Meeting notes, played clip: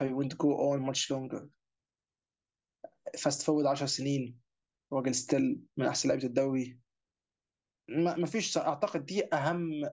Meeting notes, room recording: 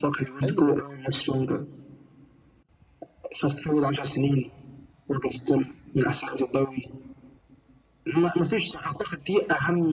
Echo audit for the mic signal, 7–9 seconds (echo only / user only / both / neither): echo only